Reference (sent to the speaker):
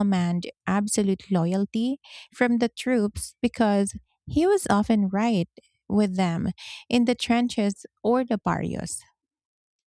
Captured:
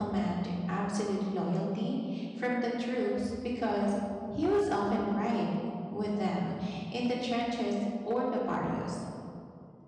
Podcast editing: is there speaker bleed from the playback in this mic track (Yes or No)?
Yes